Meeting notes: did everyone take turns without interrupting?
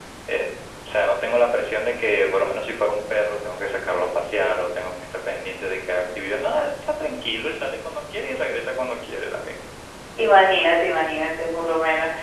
Yes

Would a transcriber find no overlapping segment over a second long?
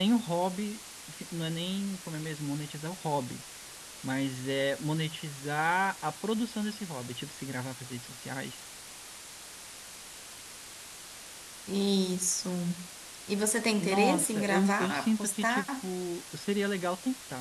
No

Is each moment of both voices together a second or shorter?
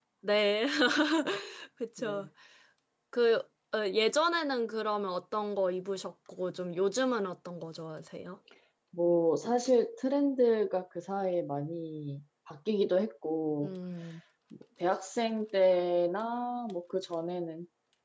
Yes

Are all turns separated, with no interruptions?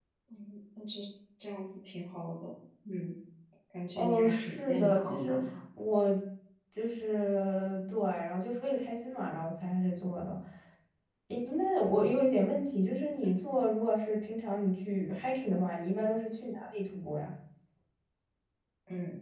No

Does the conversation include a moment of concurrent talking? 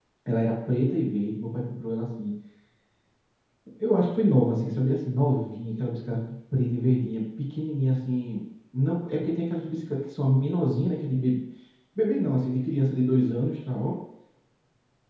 No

